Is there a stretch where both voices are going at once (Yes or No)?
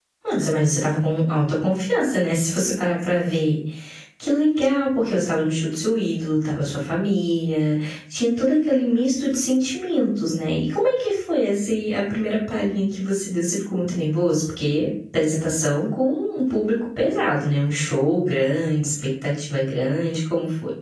No